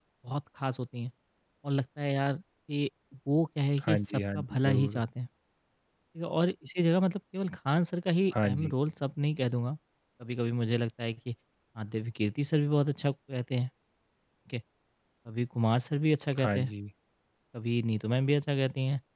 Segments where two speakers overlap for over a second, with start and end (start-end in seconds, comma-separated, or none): 3.8-5.0